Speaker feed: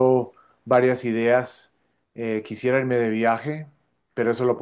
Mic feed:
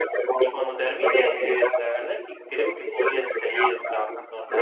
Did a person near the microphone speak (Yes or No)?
Yes